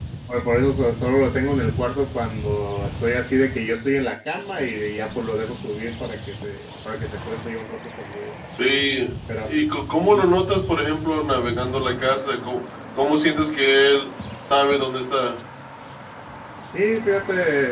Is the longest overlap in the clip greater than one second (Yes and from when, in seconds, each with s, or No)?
No